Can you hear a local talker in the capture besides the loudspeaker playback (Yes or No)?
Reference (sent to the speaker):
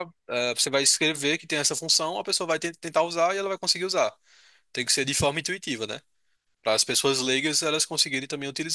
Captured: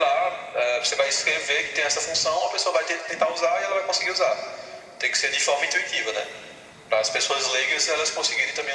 No